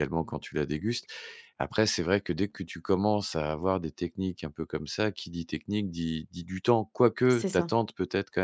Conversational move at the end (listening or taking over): listening